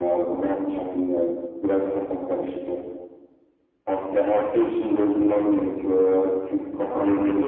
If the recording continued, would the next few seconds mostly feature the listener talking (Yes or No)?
Yes